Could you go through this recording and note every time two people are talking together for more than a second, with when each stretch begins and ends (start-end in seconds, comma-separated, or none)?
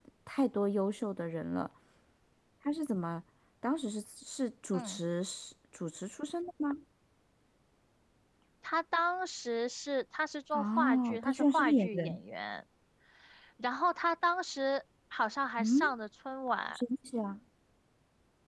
10.5-12.2